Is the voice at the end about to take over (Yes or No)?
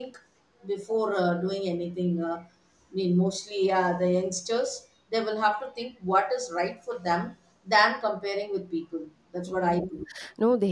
Yes